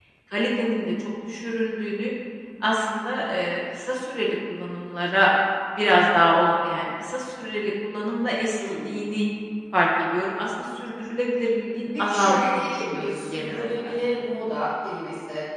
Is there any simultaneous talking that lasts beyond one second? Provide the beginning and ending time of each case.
12.0-13.9

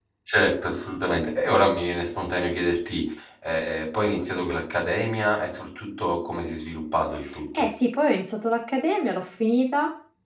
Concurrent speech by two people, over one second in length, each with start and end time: none

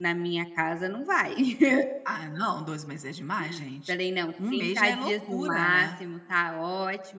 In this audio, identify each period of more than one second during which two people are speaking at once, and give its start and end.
4.5-5.9

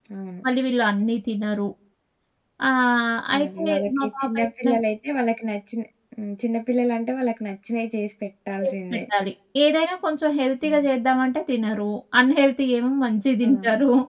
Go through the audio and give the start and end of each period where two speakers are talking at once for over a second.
3.3-4.7

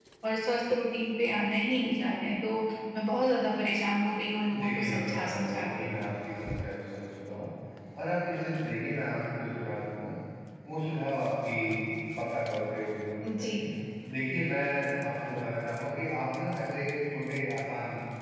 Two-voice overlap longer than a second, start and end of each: 4.5-5.9

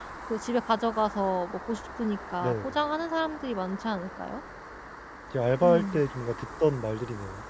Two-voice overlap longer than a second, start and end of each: none

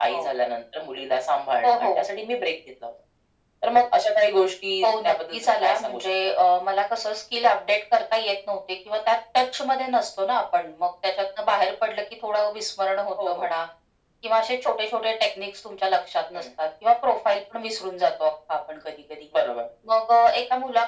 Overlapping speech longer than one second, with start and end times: 4.8-6.3

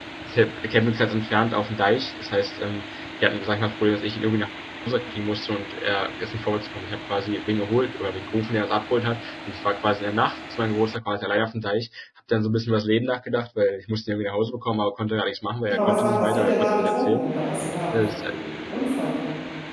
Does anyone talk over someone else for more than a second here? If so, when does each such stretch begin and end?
15.7-17.3

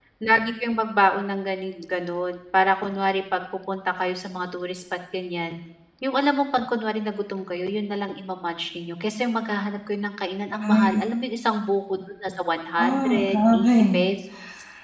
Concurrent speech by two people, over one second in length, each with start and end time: 12.8-14.1

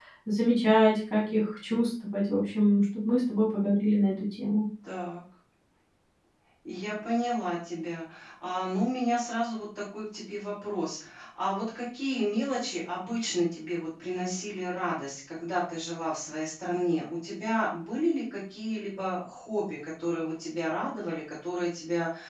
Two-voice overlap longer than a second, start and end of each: none

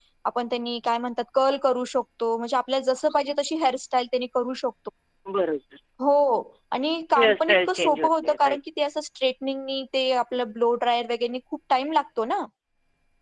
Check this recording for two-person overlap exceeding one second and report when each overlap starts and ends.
7.2-8.6

